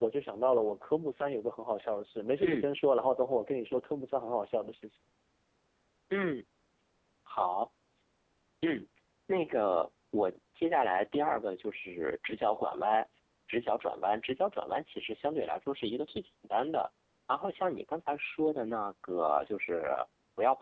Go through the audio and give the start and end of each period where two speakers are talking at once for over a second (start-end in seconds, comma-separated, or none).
none